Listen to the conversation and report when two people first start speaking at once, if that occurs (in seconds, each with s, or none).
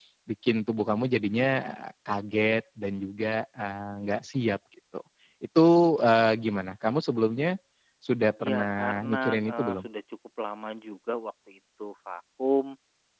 8.4 s